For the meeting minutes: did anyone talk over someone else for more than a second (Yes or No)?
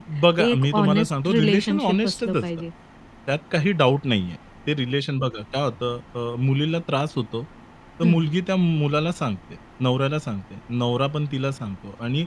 Yes